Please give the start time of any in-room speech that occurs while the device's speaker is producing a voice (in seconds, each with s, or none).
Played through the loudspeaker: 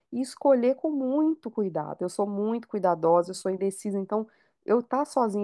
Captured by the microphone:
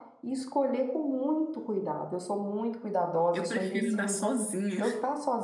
3.3 s